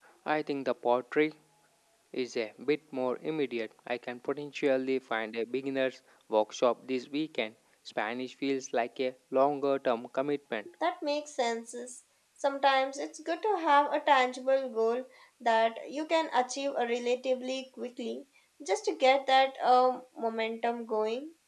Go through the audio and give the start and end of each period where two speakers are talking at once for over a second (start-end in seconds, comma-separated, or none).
none